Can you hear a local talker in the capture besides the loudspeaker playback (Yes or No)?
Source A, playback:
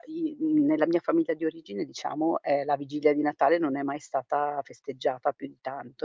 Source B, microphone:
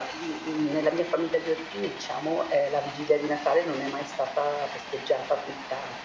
No